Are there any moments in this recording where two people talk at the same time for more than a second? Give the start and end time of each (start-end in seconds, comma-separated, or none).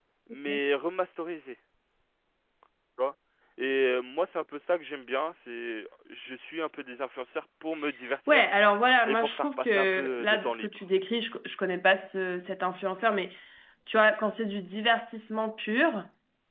9.1-10.8